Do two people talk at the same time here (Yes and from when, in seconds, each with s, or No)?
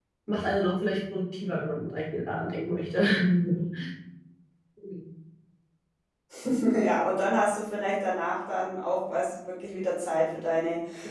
No